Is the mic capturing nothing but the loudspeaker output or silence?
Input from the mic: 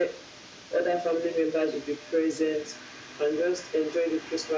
Yes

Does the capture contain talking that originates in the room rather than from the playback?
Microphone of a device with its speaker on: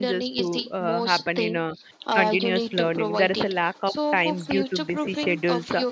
Yes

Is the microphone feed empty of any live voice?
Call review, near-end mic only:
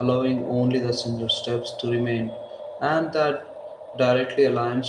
No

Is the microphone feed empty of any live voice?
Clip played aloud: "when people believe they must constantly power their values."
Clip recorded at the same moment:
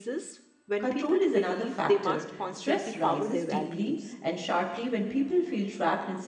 No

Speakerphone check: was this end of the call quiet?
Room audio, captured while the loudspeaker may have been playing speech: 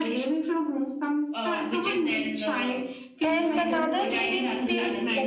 No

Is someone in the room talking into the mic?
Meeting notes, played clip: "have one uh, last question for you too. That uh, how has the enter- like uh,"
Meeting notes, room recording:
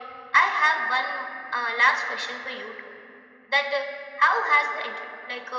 No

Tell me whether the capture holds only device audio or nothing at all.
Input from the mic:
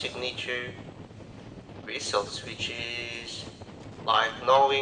Yes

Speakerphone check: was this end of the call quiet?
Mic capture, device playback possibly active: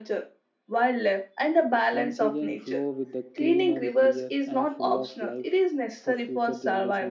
No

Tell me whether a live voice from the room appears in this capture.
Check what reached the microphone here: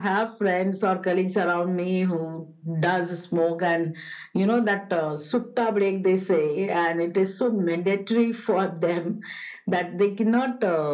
No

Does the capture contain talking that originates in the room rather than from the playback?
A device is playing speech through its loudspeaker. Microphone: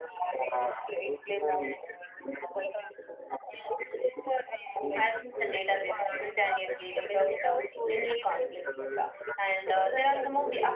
Yes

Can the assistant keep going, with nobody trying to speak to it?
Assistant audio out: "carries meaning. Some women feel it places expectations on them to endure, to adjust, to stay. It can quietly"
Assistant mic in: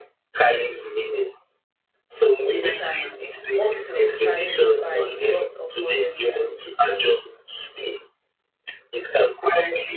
No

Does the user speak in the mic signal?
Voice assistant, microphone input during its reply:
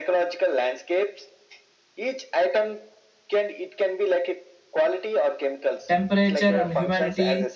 Yes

